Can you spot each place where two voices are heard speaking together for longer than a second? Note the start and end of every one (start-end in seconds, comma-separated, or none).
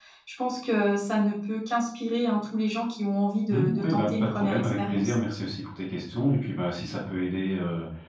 3.5-5.1